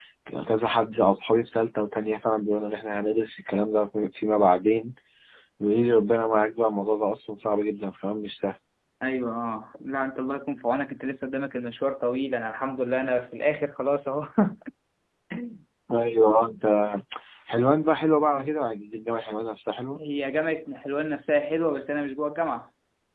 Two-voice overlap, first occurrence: none

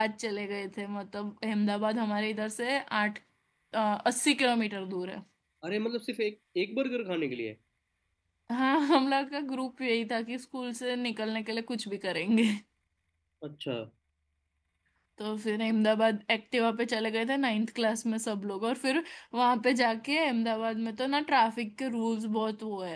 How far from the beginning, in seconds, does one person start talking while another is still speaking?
none

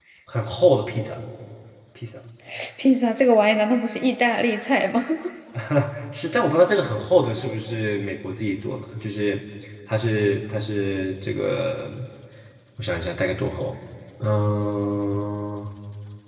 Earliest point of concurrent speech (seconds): none

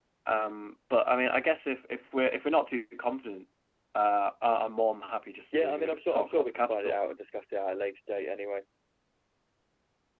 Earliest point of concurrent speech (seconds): 5.5 s

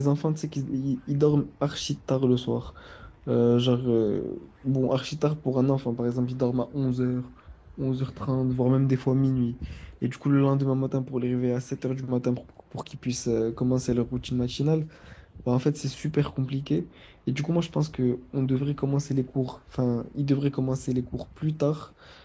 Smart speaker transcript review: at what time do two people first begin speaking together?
none

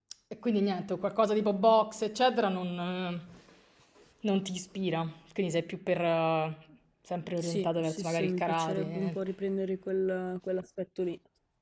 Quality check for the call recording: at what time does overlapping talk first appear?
7.4 s

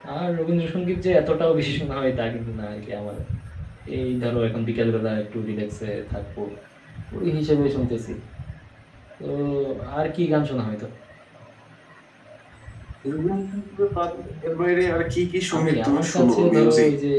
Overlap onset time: 15.5 s

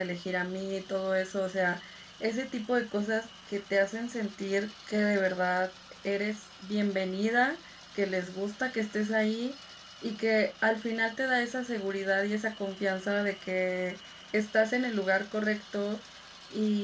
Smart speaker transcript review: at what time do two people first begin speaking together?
none

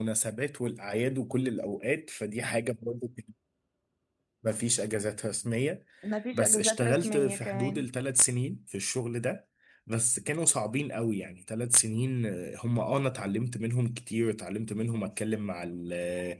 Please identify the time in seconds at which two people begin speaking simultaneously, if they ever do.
6.3 s

